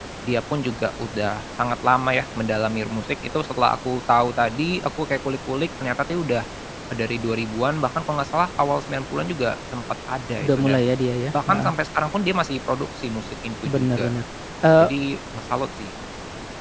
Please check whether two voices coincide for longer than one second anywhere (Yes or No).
No